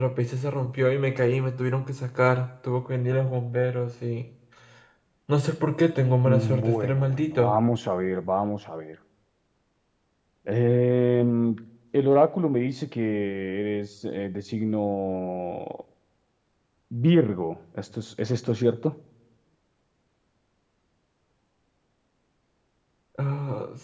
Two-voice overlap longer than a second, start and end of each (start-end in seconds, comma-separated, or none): 6.3-7.5